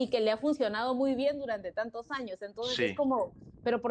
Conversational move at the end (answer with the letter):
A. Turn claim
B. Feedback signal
B